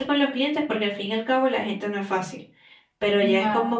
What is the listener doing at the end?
listening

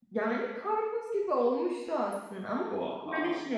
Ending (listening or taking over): listening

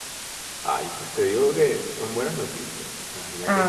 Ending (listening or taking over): listening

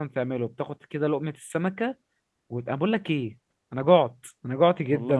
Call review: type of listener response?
listening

